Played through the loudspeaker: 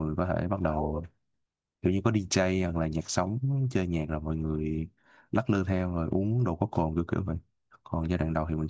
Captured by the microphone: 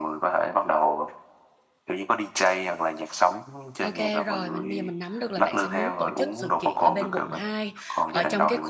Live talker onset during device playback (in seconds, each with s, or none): 3.8 s